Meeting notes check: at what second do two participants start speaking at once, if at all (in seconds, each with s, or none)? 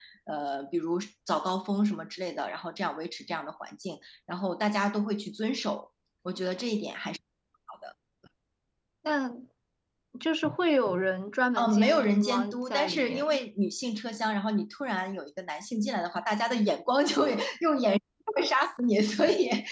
11.6 s